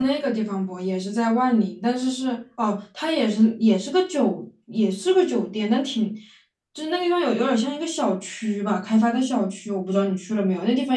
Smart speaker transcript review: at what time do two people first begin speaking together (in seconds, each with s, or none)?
none